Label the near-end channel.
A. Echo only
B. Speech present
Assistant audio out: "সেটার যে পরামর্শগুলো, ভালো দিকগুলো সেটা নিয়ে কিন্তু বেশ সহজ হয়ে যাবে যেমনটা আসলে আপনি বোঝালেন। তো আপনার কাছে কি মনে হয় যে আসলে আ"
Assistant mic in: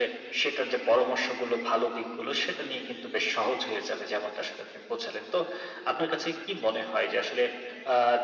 A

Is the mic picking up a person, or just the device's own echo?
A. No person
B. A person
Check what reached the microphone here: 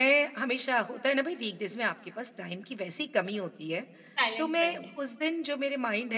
B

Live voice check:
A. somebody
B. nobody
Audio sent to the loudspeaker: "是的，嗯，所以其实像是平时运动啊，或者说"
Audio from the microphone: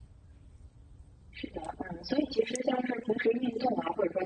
B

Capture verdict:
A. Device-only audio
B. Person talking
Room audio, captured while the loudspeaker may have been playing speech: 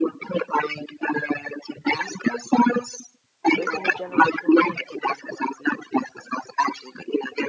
B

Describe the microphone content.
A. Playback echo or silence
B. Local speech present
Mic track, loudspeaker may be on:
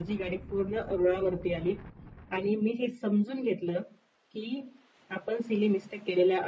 A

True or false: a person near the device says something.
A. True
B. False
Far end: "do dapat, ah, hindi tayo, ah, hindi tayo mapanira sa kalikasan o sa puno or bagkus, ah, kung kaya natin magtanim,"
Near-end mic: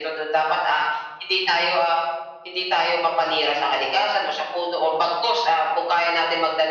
B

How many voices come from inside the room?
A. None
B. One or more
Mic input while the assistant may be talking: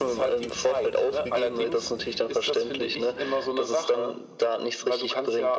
A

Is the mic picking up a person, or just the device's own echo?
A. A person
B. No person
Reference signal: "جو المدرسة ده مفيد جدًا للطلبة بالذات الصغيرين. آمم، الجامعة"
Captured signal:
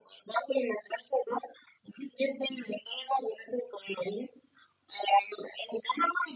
B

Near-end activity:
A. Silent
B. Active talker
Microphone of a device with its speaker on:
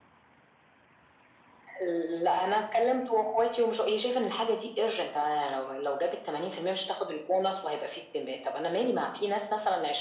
A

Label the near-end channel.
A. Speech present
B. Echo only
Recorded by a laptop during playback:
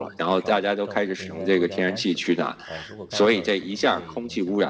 A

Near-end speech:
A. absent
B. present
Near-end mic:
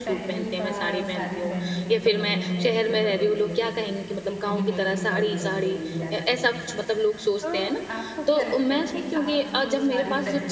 B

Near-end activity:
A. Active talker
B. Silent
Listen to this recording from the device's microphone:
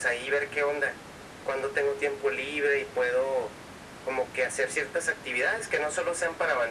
B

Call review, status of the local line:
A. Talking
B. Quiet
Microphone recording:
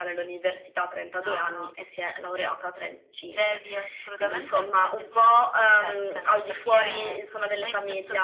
B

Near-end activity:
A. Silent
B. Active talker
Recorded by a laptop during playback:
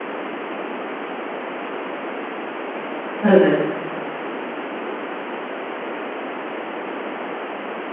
B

